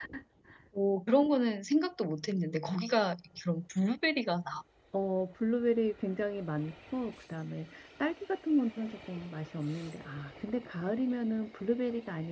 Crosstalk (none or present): none